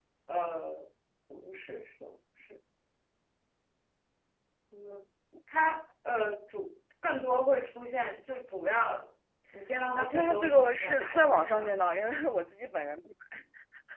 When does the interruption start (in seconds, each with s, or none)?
9.9 s